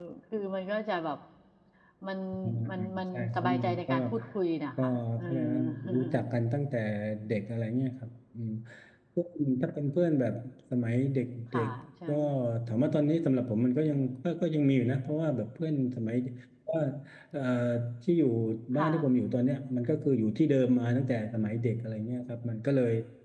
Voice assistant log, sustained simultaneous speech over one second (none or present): present